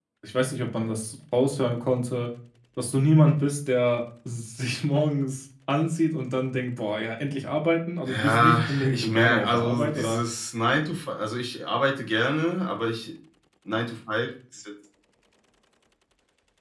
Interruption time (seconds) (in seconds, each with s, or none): 8.1 s